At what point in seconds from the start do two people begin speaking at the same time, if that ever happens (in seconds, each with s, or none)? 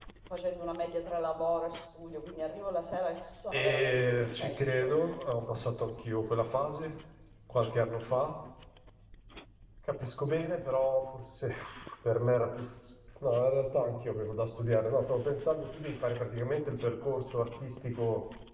3.5 s